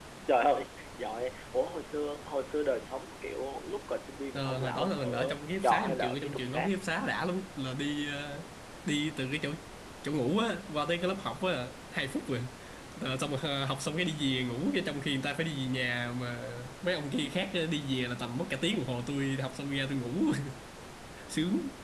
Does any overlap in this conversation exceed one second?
Yes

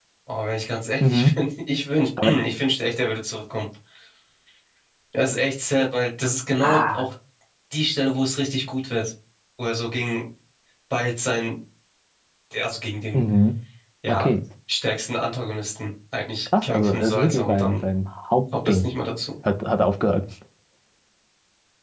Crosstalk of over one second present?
Yes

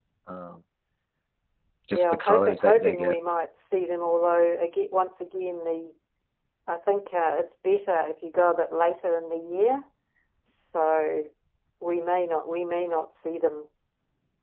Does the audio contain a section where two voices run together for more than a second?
Yes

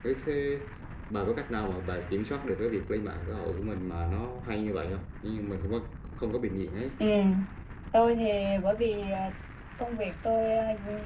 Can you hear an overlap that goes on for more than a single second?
No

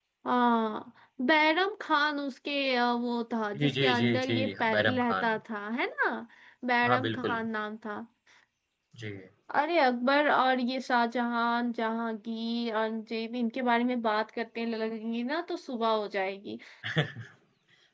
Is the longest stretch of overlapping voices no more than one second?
No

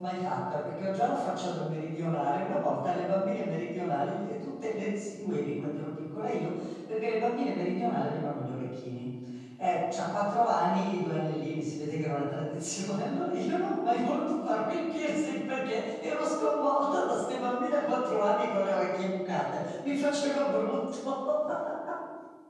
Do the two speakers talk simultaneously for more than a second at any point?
No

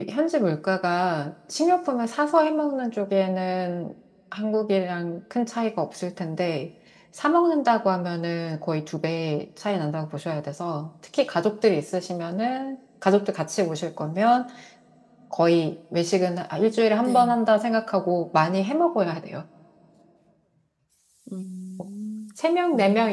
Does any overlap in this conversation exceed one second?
No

